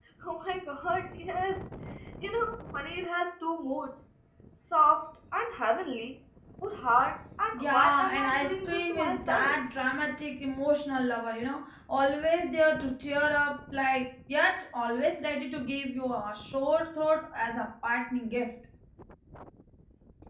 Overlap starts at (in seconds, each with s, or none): 7.5 s